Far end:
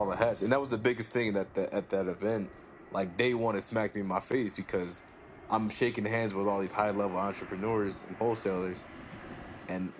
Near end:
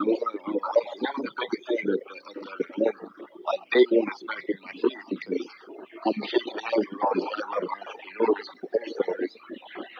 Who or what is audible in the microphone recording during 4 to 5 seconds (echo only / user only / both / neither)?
echo only